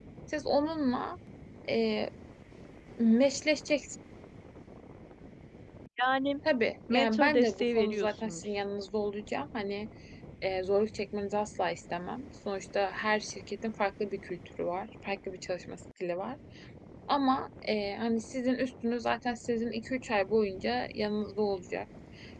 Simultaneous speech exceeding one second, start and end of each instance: 6.9-8.4

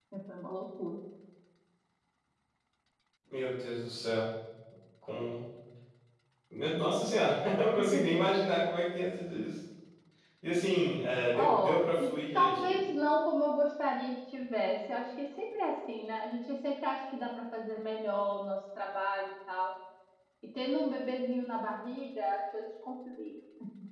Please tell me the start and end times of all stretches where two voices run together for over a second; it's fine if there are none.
11.3-12.8

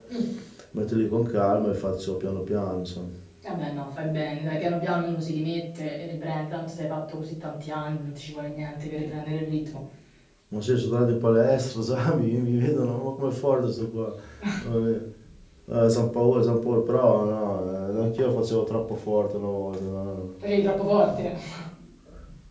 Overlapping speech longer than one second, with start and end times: none

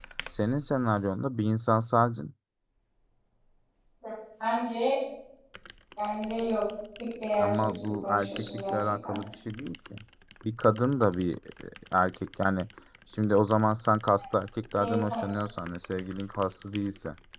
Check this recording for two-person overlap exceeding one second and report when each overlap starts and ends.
7.4-9.2

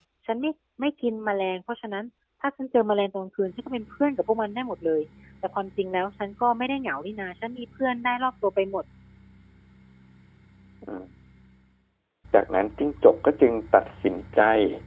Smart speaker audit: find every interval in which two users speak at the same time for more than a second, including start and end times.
none

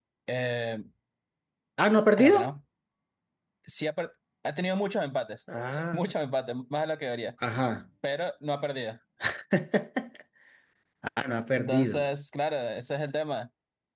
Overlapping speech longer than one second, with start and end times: none

